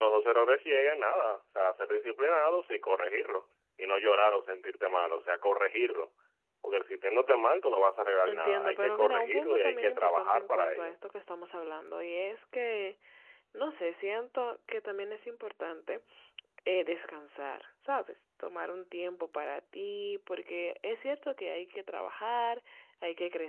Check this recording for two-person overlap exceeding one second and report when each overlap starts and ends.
8.3-11.0

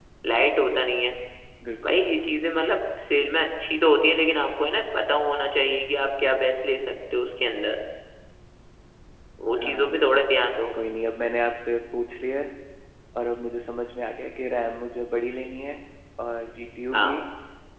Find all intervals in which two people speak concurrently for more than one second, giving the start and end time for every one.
none

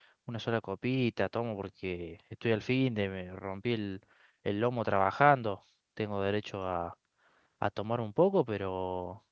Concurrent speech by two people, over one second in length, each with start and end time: none

